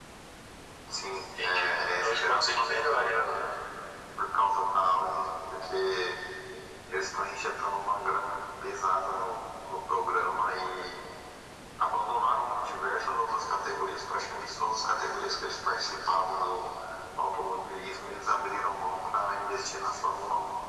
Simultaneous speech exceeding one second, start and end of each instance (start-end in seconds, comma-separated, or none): 1.4-3.2